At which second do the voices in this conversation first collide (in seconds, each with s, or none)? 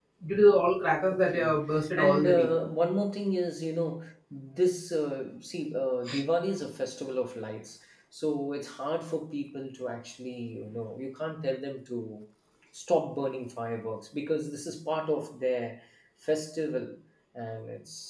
1.1 s